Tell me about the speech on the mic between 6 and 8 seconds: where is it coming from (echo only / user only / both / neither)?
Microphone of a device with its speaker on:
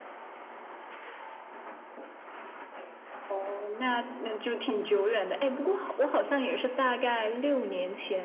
echo only